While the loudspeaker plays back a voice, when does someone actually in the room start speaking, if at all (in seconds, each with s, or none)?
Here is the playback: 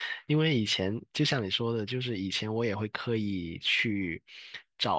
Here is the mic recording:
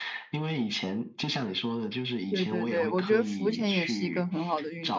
2.3 s